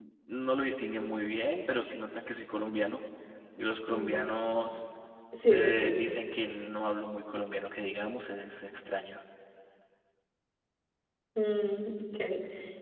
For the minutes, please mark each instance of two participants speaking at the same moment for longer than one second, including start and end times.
none

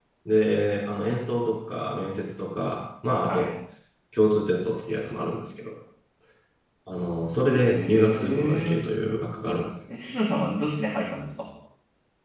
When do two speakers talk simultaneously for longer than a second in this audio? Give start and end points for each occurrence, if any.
7.5-8.9

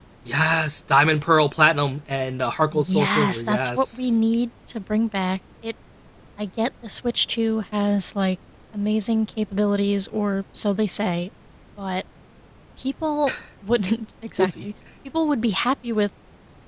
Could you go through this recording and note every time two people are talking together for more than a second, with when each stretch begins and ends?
2.7-4.1

